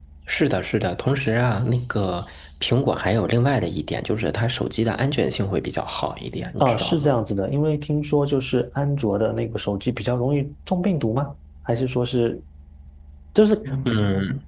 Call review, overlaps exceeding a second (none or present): none